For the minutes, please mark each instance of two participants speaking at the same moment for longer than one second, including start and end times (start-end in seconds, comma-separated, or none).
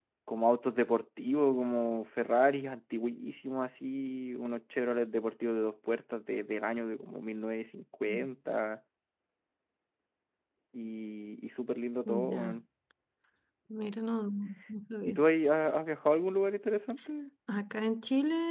none